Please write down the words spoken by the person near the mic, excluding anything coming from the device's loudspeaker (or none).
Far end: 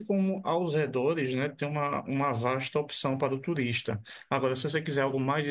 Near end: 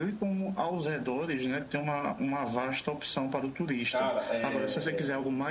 cara, é